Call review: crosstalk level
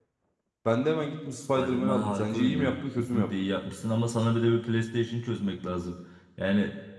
present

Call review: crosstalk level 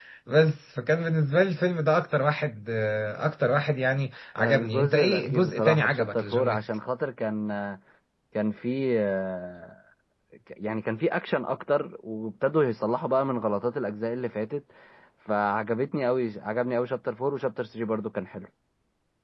present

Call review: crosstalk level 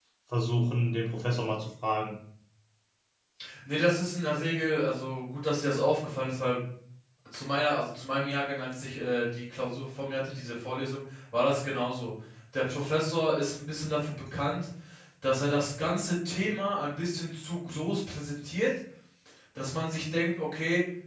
none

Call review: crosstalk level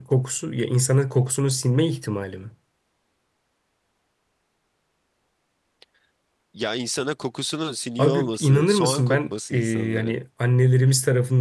present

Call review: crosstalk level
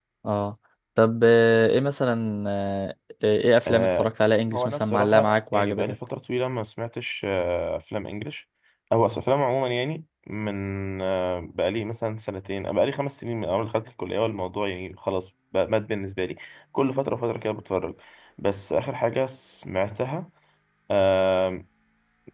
present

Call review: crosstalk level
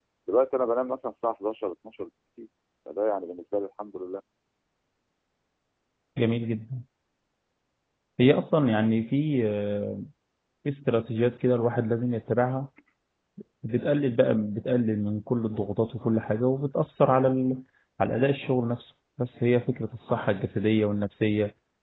none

